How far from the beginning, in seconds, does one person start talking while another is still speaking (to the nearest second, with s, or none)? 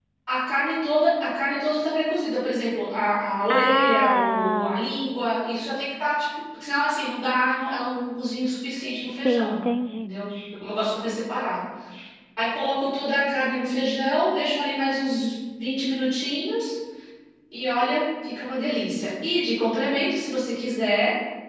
3 s